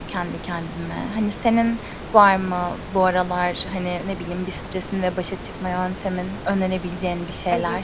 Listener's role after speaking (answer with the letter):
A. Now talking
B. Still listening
A